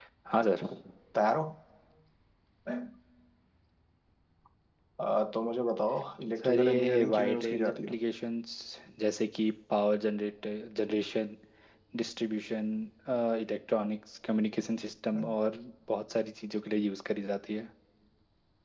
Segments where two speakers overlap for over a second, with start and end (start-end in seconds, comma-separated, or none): 6.4-8.0